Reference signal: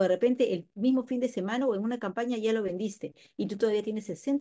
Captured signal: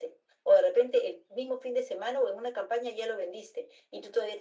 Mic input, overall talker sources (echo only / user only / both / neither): echo only